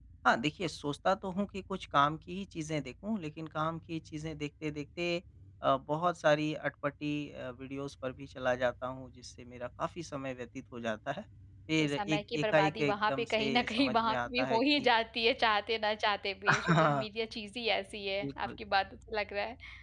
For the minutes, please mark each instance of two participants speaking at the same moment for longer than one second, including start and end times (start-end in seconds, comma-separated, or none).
11.8-14.9